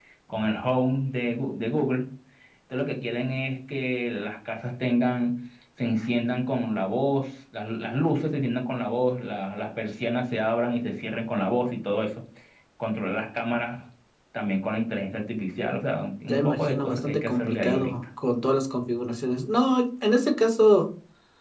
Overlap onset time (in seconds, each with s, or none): 16.2 s